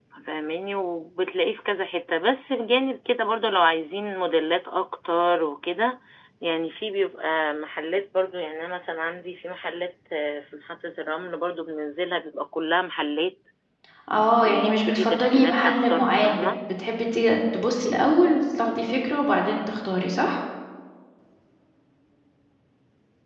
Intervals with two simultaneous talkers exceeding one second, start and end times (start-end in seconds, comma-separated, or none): 14.4-16.5